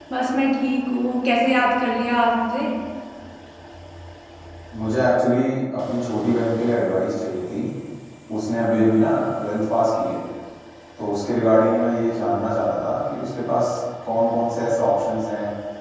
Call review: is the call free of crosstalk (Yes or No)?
Yes